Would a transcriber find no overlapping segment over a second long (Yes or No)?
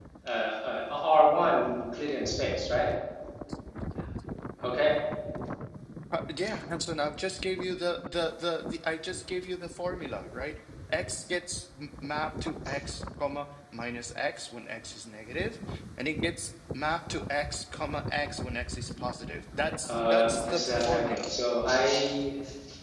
No